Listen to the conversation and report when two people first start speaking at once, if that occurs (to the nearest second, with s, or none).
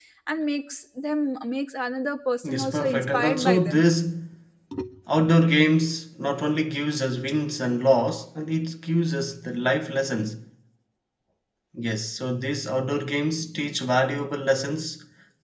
2 s